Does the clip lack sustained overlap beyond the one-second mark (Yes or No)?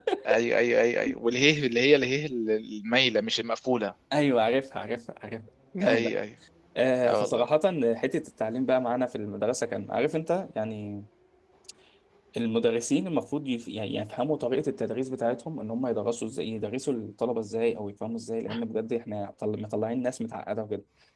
Yes